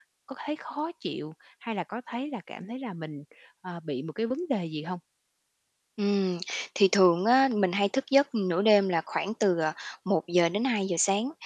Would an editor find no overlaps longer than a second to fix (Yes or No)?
Yes